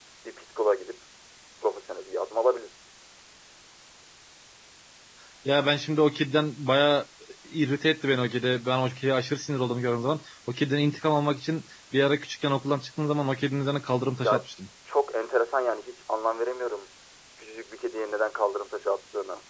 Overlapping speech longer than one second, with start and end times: none

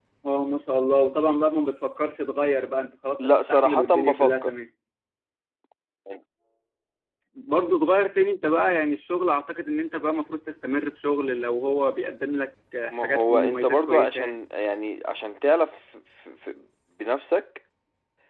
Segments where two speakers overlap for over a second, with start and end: 3.2-4.5, 12.9-14.4

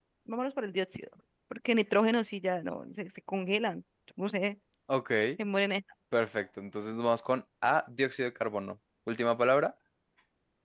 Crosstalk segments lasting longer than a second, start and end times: none

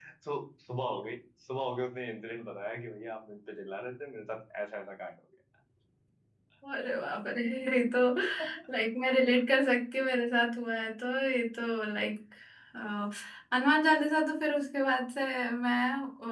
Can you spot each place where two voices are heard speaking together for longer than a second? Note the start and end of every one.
none

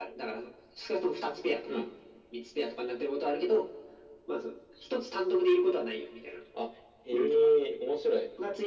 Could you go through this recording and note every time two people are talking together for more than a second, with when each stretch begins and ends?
none

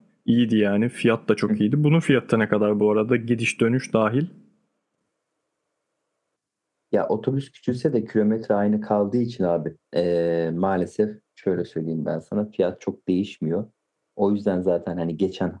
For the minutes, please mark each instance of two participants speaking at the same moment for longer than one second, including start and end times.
none

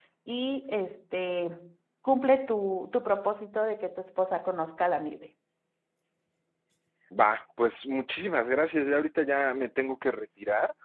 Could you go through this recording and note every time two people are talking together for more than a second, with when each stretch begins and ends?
none

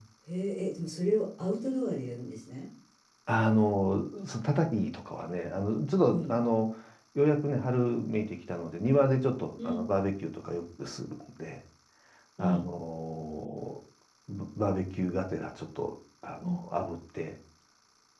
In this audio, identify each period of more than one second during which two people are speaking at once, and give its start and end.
none

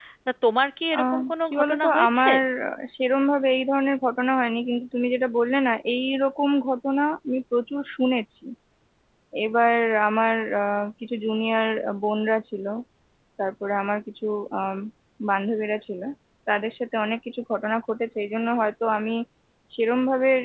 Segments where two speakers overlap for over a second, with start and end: 1.0-2.3

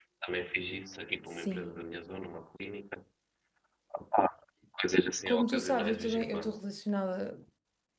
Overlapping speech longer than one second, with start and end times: 5.3-6.5

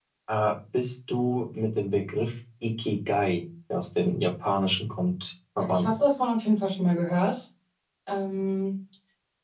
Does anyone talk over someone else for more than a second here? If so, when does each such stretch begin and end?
none

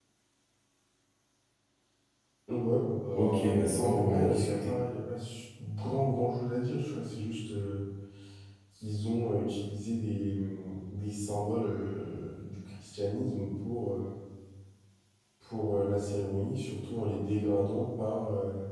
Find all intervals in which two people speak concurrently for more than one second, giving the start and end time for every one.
3.2-4.8

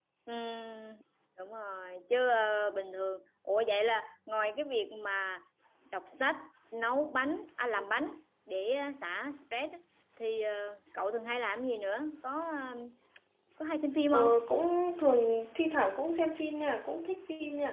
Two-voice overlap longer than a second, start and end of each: none

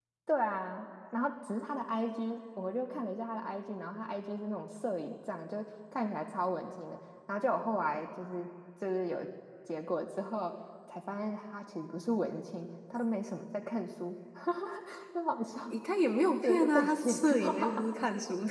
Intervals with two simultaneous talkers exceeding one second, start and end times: 16.4-17.9

